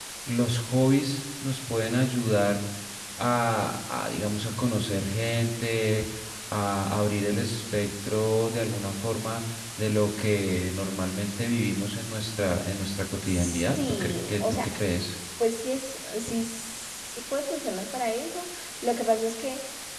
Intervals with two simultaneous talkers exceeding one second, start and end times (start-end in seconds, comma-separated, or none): 13.2-14.8